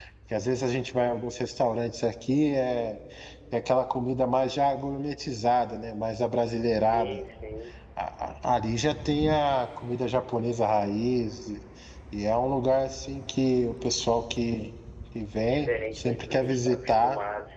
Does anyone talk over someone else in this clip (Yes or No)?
Yes